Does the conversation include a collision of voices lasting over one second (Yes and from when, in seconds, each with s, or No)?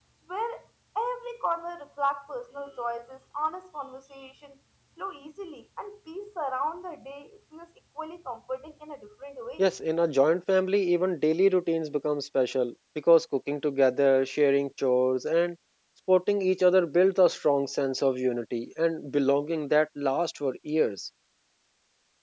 No